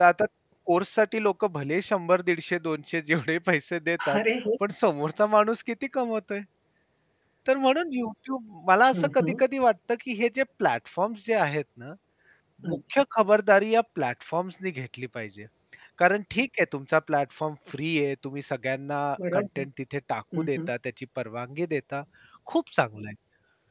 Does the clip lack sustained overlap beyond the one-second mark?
Yes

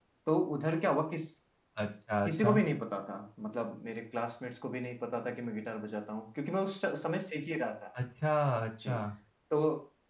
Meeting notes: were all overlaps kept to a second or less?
Yes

